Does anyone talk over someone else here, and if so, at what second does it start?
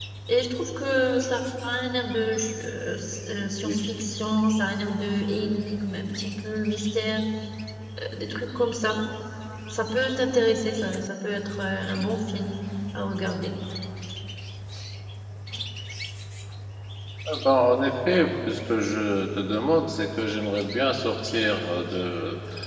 none

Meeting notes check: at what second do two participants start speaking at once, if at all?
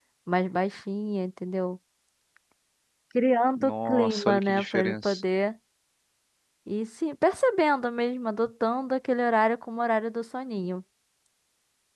3.6 s

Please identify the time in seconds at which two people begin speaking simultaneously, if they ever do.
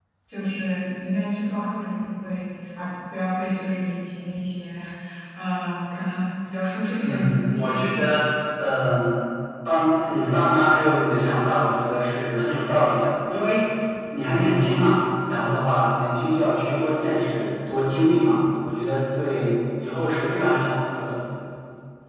7.0 s

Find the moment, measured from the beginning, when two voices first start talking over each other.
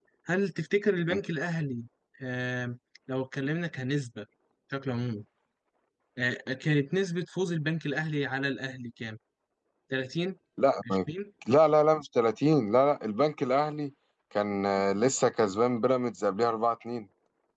none

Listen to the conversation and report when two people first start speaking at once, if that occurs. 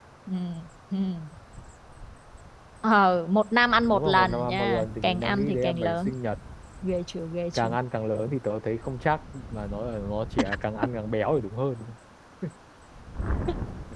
3.9 s

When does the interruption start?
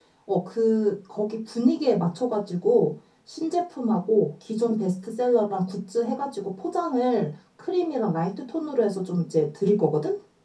none

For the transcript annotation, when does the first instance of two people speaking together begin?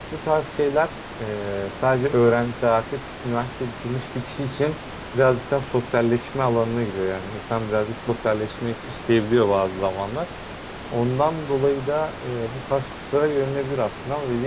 none

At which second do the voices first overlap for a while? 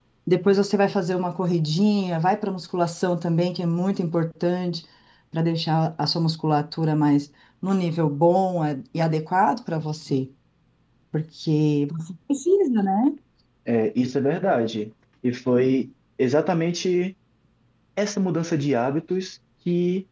none

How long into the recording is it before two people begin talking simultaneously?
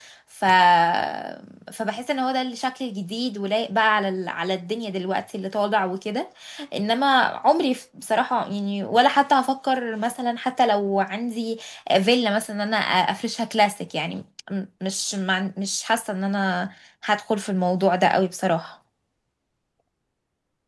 none

